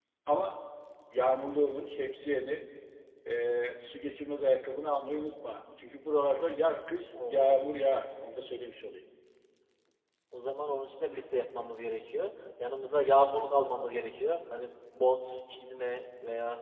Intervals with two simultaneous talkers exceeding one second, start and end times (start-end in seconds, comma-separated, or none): none